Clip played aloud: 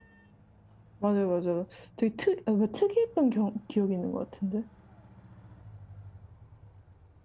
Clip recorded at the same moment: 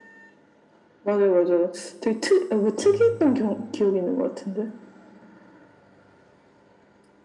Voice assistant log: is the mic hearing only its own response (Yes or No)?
No